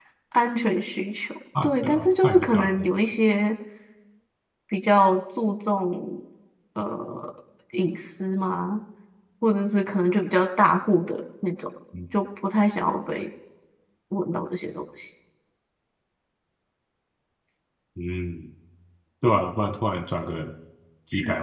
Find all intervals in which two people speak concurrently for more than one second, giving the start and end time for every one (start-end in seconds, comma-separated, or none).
1.6-2.9